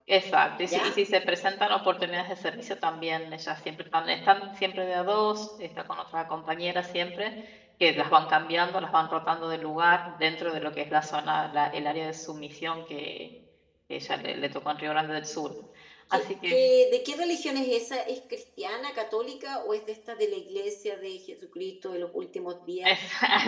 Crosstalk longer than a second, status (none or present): none